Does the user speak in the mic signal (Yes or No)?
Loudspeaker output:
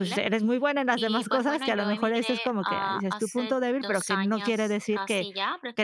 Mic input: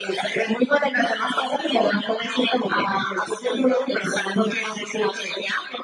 No